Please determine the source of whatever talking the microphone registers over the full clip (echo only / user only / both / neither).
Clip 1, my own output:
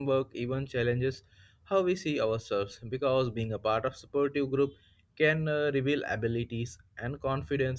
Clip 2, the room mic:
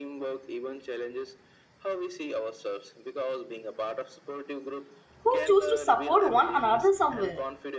both